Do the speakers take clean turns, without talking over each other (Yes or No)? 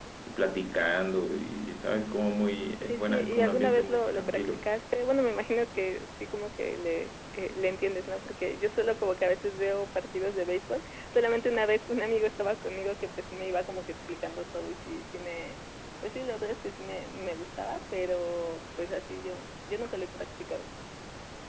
No